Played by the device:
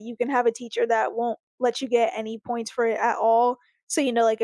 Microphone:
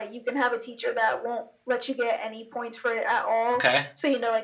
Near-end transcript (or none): Okay.